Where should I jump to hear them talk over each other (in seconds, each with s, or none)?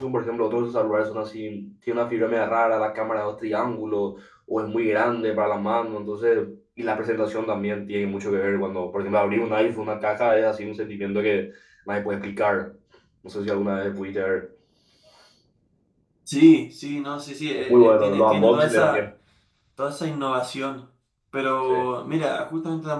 17.6 s